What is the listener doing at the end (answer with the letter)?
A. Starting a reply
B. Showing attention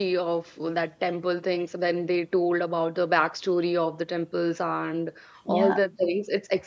B